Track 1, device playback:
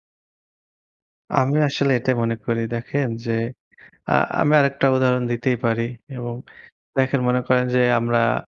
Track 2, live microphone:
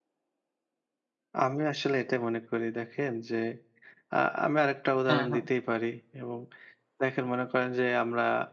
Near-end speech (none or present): present